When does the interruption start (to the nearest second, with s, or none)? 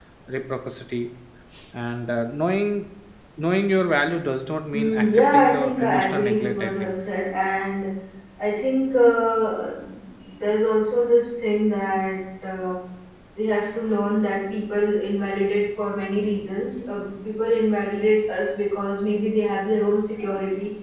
5 s